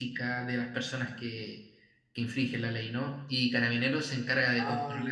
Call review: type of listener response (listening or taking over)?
taking over